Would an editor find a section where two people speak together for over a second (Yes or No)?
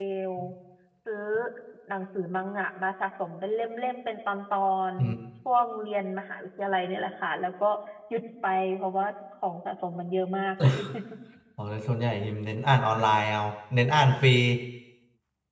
No